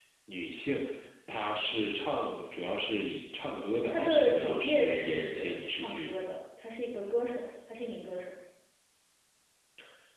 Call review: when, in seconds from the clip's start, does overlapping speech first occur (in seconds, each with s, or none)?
3.9 s